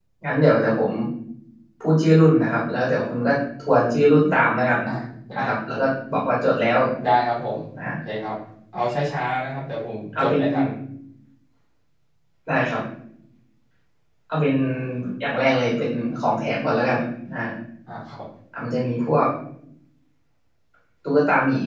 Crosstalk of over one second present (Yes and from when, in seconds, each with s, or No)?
No